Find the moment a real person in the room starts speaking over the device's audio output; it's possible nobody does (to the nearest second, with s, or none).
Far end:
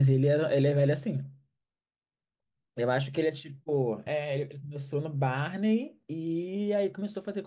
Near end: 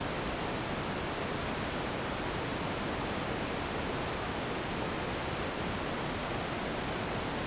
none